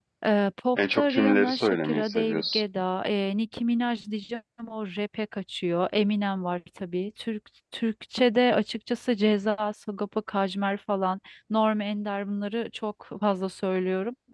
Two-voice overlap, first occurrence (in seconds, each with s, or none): 0.8 s